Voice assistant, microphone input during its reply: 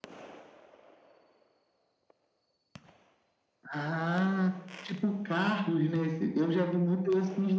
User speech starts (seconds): none

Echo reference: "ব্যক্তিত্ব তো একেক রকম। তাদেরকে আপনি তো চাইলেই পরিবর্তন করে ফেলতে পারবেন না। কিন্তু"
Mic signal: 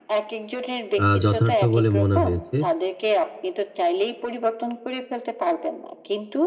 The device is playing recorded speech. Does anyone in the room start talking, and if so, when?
1.0 s

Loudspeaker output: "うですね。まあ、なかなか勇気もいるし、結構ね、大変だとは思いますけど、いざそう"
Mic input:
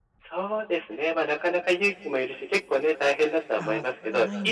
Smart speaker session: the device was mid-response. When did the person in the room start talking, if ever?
3.5 s

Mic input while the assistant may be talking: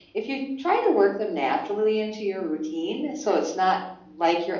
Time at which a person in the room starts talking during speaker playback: none

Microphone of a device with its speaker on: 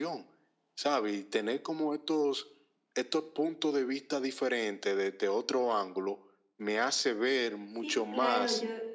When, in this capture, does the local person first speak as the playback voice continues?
7.7 s

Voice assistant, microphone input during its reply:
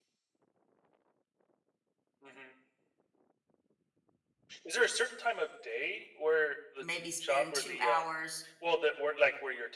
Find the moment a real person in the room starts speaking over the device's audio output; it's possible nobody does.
6.8 s

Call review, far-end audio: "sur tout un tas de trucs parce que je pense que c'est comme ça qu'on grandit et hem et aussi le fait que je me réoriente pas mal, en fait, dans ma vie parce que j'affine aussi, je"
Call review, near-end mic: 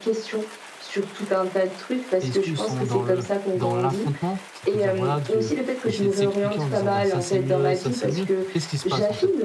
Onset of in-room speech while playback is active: 2.2 s

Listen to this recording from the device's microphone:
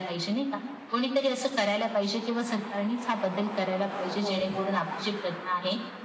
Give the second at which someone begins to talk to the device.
4.2 s

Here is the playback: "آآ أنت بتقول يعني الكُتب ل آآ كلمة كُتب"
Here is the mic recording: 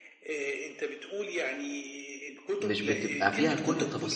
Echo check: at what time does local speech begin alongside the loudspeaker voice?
2.6 s

